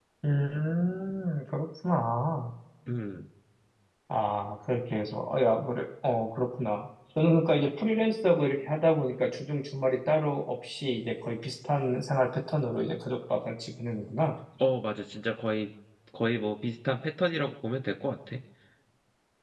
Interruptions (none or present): none